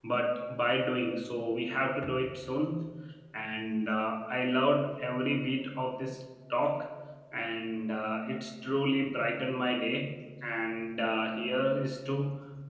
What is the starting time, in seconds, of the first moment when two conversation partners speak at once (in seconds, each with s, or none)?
none